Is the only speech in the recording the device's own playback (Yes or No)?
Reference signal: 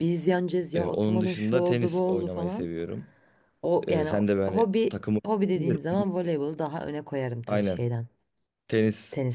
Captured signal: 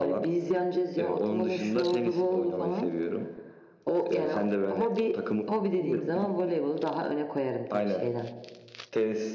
Yes